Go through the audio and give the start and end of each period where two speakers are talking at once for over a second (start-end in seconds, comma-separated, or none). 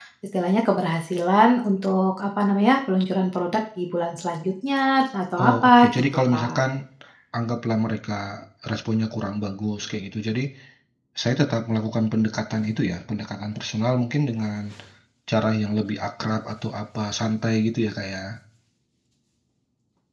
5.4-6.6